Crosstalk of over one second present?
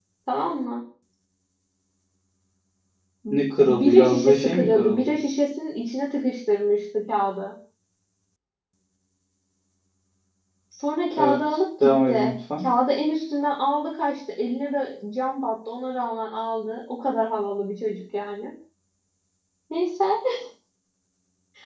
Yes, from 3.6 s

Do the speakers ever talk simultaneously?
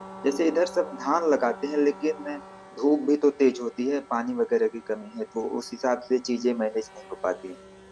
No

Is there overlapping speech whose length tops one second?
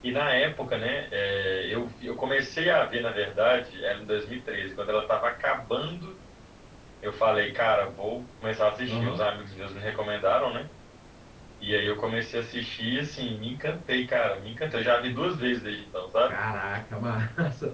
No

